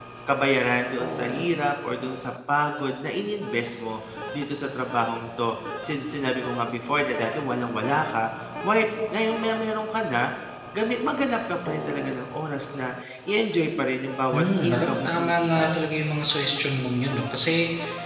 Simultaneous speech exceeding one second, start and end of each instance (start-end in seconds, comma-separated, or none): 14.3-15.8